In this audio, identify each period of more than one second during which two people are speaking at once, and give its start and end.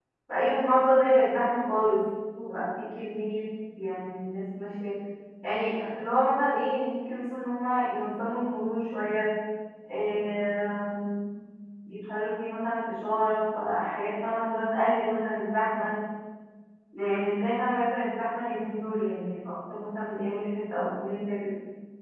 none

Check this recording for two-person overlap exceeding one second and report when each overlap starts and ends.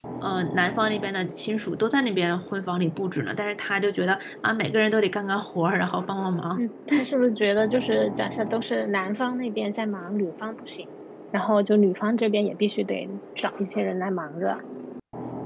none

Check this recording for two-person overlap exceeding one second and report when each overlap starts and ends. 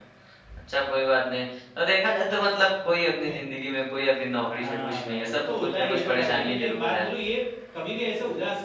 4.5-7.1

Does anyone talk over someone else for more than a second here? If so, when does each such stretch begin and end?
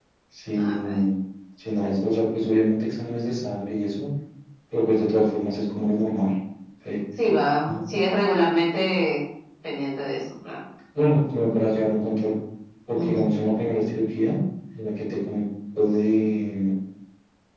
none

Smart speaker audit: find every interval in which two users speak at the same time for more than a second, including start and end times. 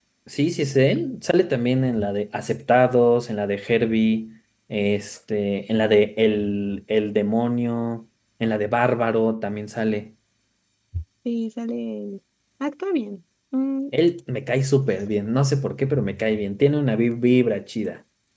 none

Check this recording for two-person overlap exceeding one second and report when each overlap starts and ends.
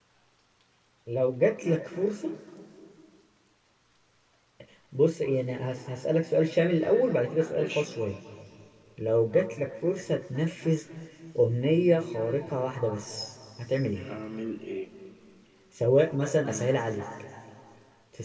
none

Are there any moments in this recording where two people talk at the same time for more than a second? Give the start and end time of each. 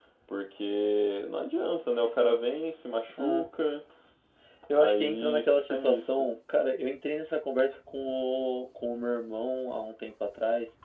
4.7-6.2

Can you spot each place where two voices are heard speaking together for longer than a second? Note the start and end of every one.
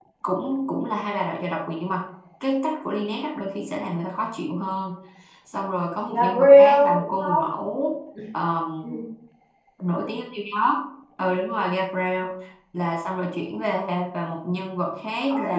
6.1-7.4

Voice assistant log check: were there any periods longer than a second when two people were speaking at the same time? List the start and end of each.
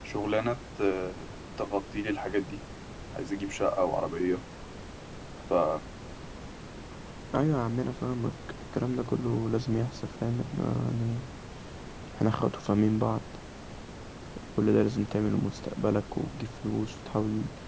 none

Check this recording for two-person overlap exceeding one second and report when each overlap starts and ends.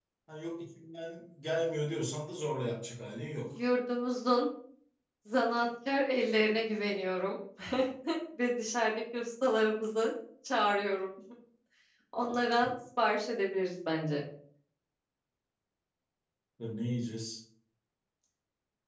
none

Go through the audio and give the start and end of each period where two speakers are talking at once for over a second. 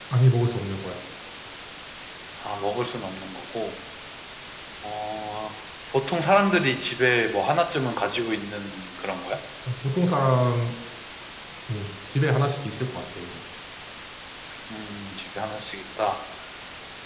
none

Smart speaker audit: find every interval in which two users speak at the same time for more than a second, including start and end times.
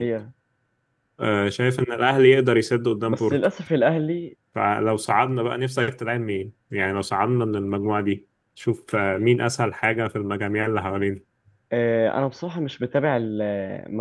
none

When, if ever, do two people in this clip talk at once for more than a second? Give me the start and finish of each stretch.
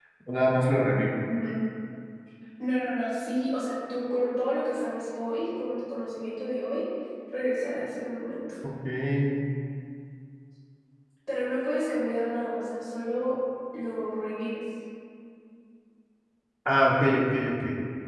none

